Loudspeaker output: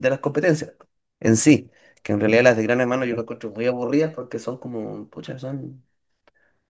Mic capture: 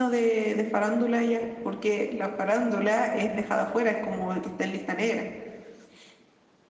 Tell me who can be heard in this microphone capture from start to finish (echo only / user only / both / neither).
user only